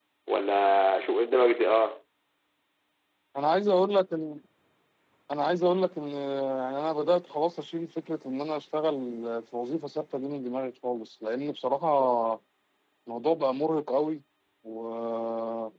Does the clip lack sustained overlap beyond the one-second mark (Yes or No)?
Yes